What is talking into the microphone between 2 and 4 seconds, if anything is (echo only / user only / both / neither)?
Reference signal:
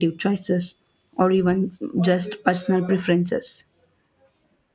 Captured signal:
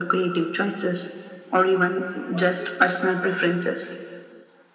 echo only